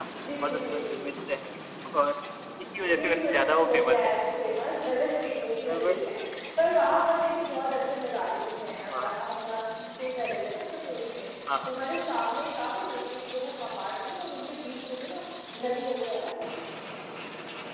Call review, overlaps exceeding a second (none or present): present